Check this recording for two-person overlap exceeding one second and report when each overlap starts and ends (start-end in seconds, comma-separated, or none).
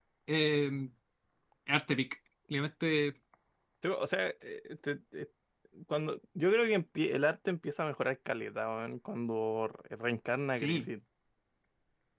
none